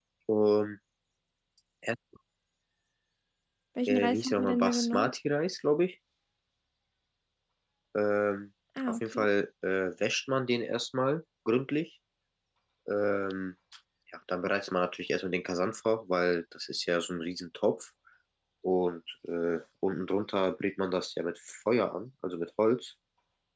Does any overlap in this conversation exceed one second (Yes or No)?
Yes